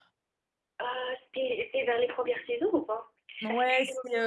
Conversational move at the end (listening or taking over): taking over